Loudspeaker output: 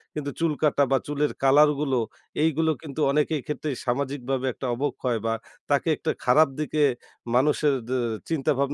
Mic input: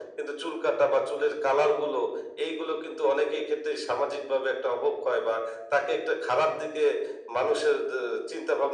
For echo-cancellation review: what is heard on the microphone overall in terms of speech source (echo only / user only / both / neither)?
echo only